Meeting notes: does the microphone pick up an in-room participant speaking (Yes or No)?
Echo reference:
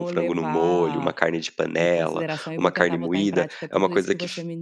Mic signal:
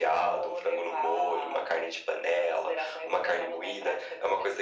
No